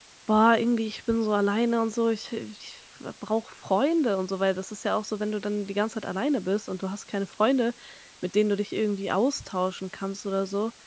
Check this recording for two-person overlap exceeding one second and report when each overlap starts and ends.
none

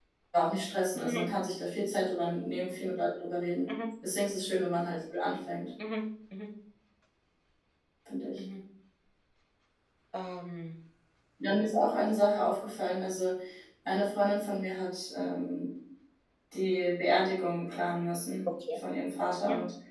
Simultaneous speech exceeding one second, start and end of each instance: none

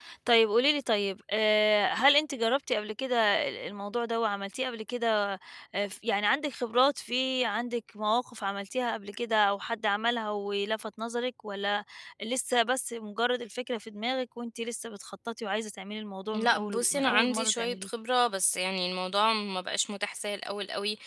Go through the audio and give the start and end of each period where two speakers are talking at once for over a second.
16.3-17.9

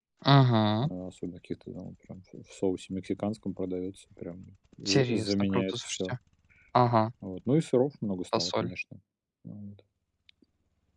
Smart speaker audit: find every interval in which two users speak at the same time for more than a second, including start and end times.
4.9-6.1

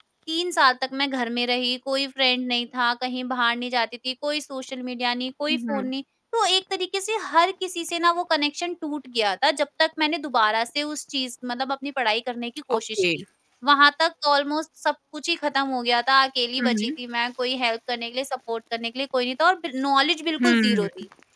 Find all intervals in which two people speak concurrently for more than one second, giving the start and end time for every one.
none

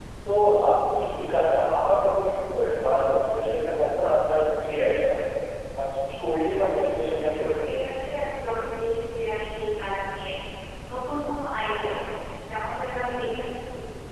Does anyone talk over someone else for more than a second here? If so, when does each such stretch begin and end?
6.6-7.8

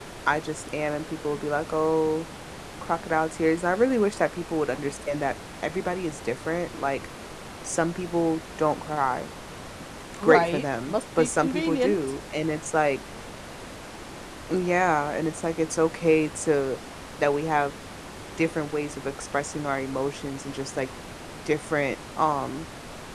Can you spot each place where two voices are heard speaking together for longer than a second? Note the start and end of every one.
10.2-12.0

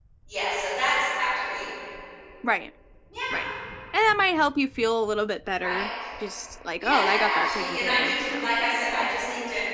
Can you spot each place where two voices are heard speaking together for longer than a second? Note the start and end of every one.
6.8-9.1

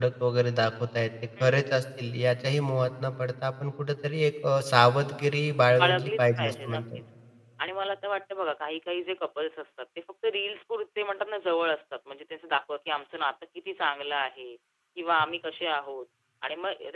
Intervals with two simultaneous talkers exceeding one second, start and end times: 5.8-7.0

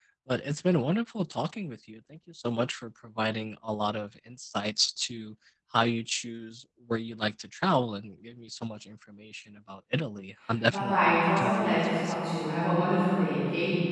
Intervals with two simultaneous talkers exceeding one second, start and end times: 10.7-12.1

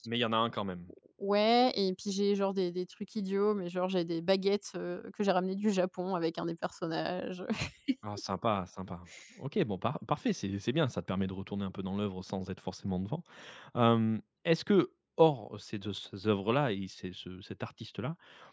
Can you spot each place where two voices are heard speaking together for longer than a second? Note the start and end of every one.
none

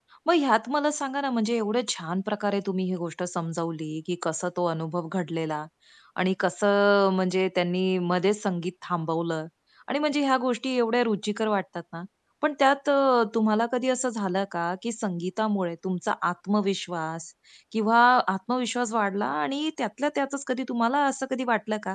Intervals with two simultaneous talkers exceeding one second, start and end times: none

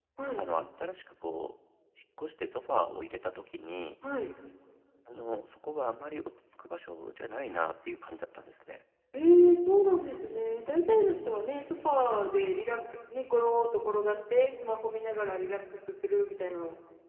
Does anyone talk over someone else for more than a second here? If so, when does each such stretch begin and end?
none

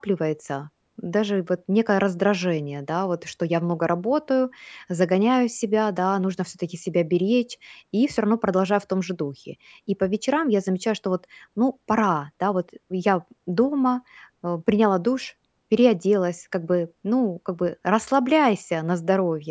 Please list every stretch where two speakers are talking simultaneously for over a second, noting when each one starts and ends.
none

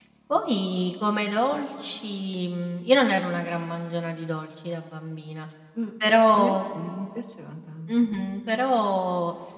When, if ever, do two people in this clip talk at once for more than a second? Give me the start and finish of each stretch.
none

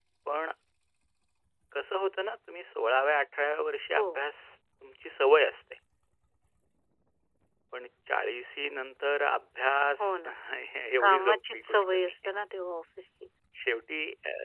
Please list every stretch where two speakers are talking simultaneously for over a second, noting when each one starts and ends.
11.0-12.3

